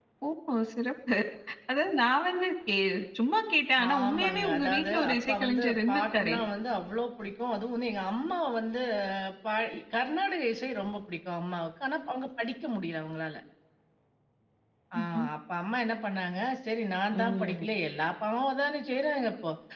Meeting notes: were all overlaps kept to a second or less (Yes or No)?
No